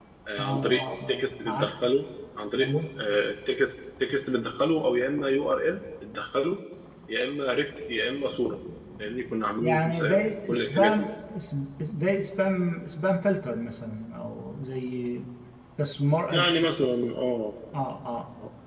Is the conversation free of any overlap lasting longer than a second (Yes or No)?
No